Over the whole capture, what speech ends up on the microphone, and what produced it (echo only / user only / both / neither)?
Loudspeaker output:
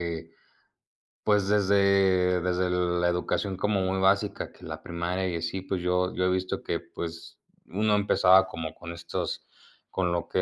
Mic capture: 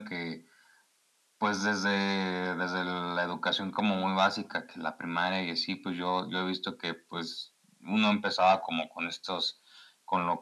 echo only